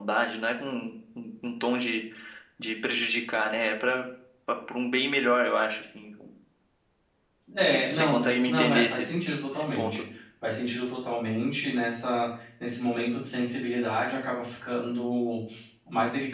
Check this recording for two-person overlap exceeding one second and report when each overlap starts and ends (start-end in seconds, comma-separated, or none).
7.6-9.1